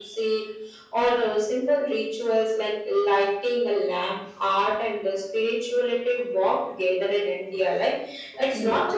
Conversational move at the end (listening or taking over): listening